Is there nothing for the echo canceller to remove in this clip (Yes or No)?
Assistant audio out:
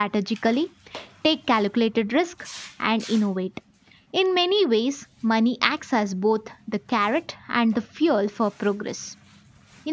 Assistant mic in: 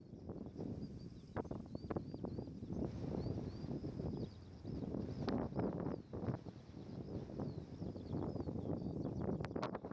Yes